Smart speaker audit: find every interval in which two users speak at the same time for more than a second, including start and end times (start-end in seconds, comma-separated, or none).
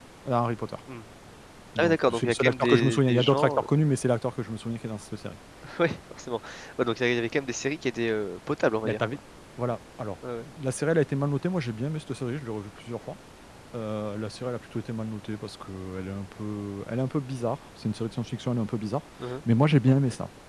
1.8-3.6